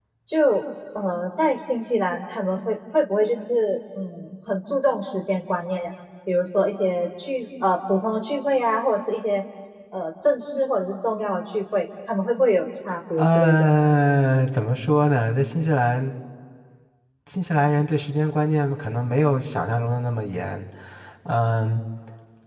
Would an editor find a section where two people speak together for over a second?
No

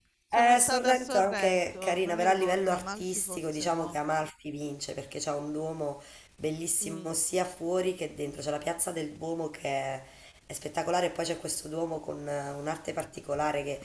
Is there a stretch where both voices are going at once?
Yes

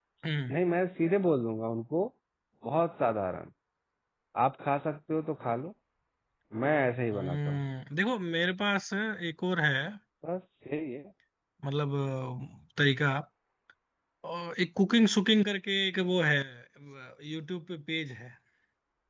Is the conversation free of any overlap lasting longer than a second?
Yes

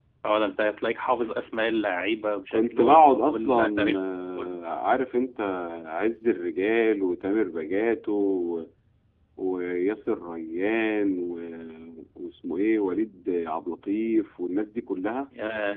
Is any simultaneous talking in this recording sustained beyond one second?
Yes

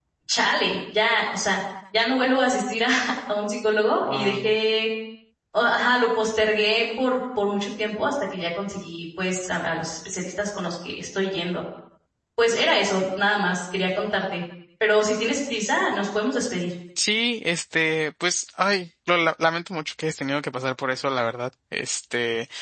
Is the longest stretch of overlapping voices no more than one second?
Yes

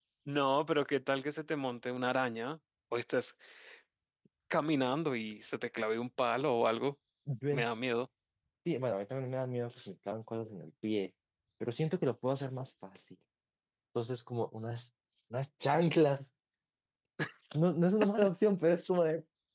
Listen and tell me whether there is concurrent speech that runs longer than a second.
No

